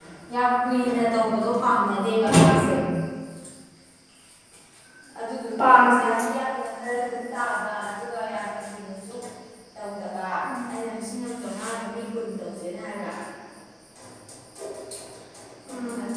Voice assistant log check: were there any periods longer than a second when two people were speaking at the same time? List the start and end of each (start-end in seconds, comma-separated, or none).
none